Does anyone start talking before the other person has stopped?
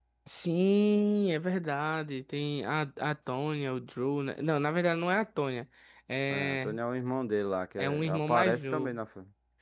Yes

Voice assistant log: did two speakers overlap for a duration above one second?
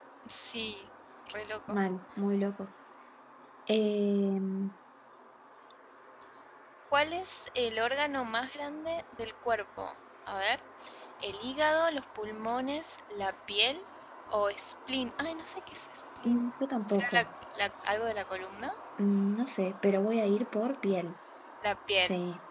No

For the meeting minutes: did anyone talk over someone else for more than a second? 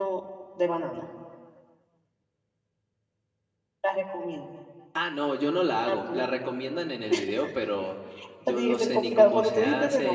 Yes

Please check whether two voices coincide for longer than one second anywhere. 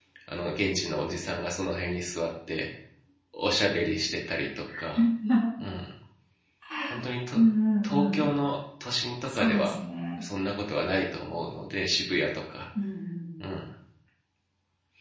No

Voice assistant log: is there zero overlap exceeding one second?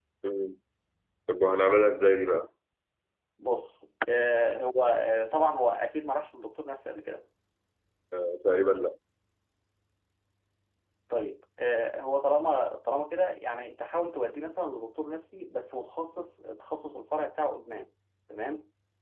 Yes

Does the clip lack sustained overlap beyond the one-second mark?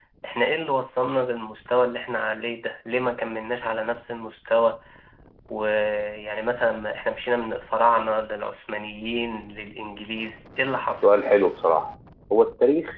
Yes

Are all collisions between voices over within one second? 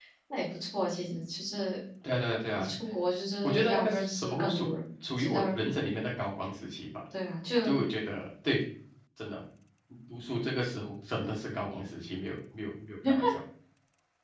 No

